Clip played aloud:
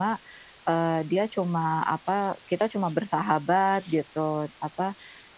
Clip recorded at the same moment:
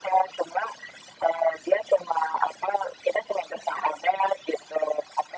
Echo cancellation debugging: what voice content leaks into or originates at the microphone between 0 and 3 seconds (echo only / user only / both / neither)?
echo only